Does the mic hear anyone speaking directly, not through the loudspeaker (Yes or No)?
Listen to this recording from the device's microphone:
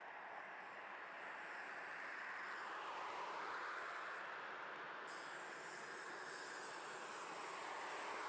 No